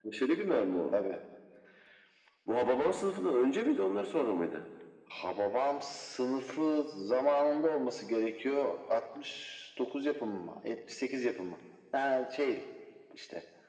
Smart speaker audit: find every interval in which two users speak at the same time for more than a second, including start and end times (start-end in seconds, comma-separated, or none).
none